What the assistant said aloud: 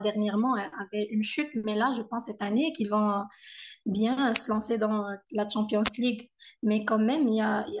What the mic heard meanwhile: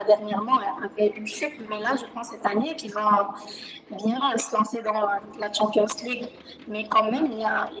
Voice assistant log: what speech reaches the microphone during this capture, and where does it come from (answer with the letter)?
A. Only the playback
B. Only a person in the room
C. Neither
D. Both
A